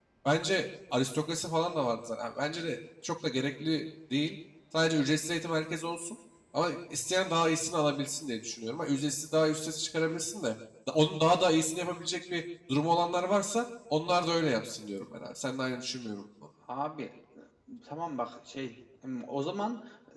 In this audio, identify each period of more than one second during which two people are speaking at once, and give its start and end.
none

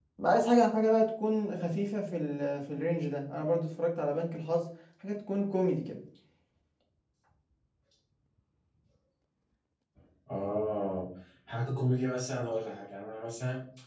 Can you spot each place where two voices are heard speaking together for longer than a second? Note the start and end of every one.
none

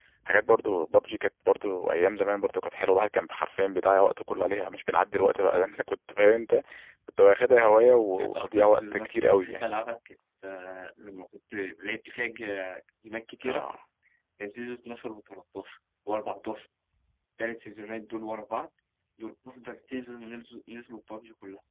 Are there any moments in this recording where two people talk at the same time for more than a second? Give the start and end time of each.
8.2-9.7

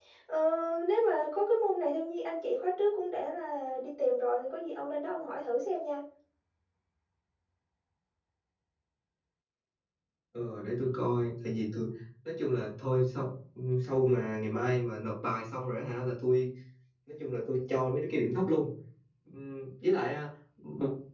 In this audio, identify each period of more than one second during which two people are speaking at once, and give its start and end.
none

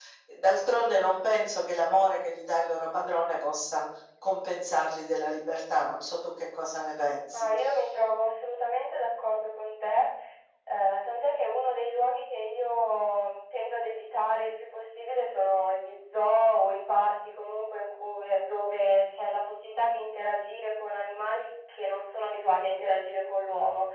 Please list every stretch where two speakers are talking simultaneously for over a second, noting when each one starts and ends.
none

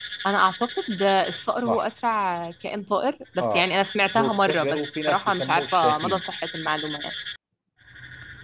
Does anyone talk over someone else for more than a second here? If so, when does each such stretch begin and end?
4.2-6.2

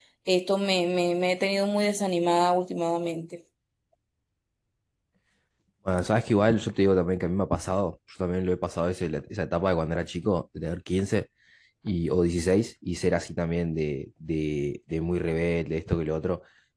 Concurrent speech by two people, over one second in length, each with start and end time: none

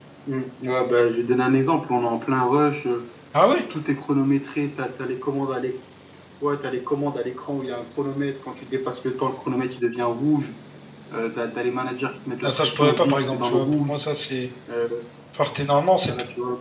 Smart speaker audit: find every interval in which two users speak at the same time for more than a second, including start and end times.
12.4-14.0

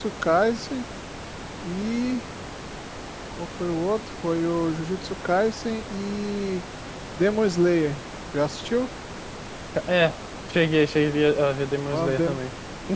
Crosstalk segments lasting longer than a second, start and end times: none

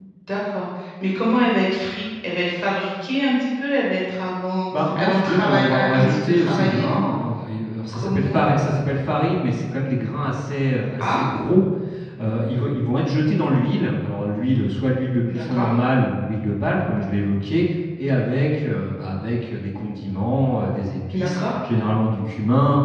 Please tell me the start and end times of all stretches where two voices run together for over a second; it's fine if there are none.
4.8-7.1

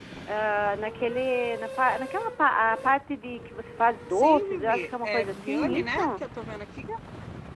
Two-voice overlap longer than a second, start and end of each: 4.1-6.0

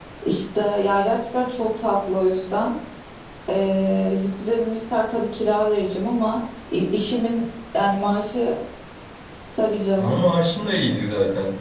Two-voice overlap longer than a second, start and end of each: none

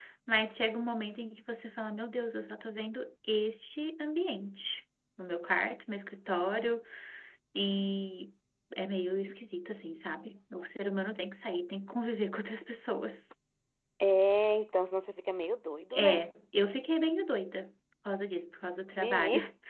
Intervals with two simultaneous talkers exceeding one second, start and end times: none

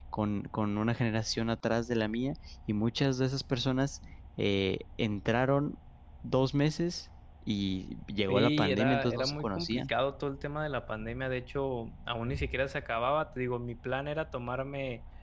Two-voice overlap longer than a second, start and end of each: 8.3-9.9

